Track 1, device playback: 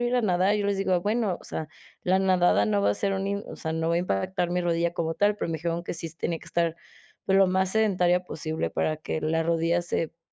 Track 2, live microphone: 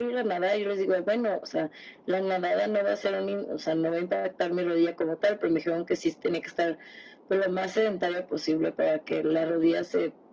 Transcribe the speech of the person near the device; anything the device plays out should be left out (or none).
none